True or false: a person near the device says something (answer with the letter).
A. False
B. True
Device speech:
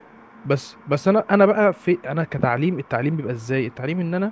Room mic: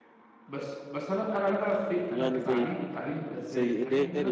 B